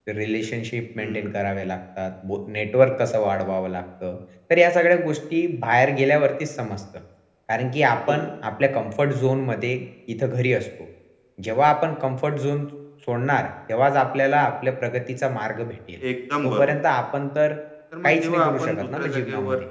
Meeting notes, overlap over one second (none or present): present